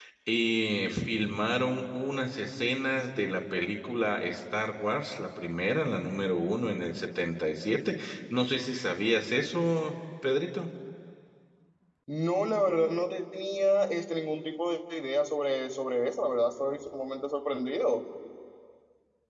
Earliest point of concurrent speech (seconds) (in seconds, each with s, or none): none